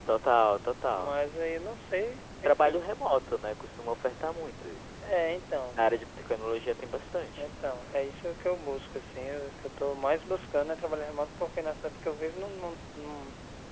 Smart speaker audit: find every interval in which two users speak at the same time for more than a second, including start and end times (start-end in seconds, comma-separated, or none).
none